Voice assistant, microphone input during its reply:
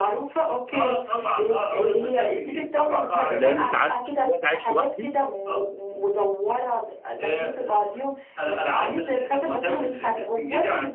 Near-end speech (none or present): present